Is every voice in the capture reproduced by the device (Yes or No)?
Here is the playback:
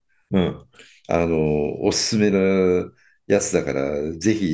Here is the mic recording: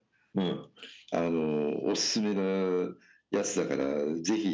Yes